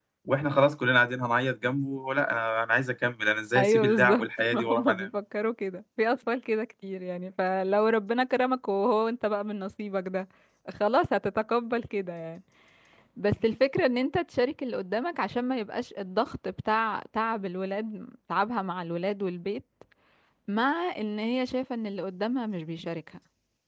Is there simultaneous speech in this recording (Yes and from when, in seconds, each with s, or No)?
Yes, from 3.6 s